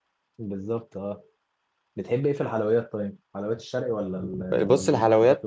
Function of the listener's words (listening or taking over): taking over